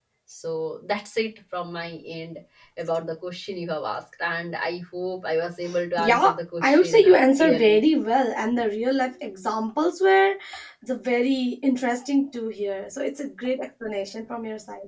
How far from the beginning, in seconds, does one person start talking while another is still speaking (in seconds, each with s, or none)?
6.0 s